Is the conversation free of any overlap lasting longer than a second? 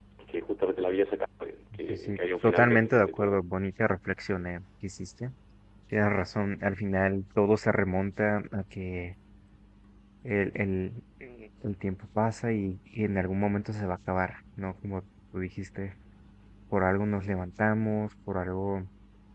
No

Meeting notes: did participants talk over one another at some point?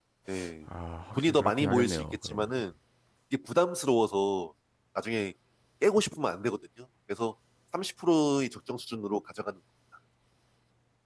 Yes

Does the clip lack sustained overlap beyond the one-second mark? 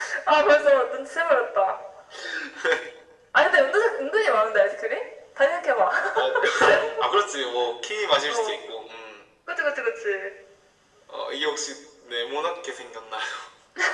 Yes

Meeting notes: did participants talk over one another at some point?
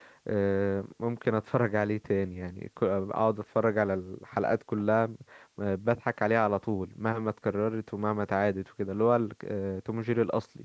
No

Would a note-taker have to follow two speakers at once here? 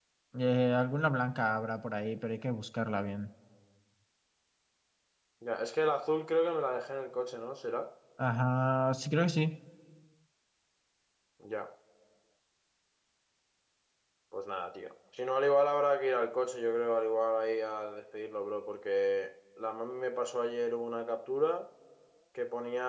No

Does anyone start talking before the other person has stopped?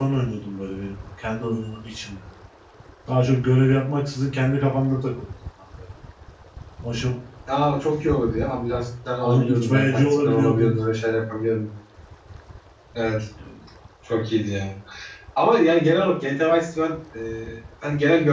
Yes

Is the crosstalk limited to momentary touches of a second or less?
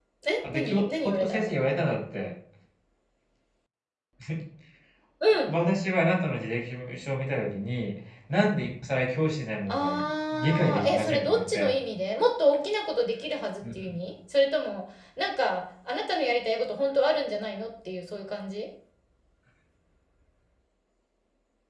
No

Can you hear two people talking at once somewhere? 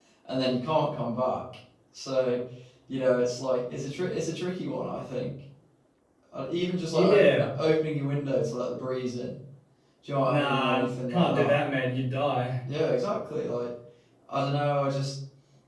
Yes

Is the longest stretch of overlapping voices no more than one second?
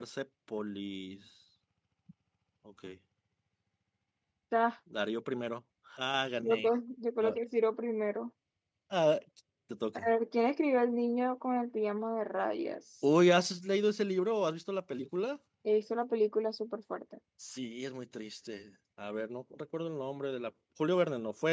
Yes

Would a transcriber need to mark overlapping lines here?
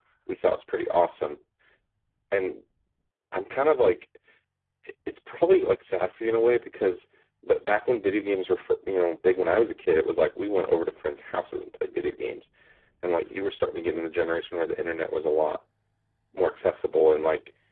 No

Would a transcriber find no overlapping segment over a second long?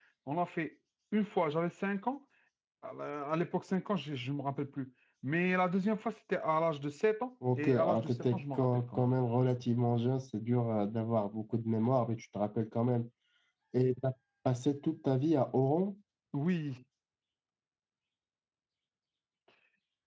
No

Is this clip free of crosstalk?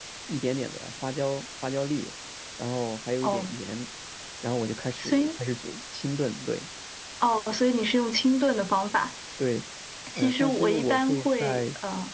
No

